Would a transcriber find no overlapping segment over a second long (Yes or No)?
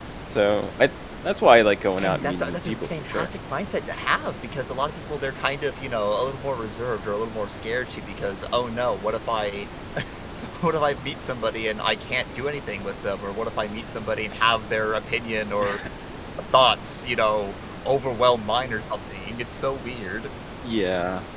No